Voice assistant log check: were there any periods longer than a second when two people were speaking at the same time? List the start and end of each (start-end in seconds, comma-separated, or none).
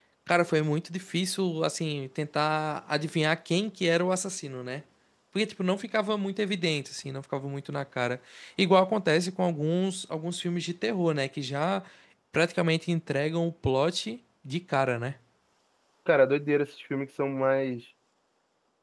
none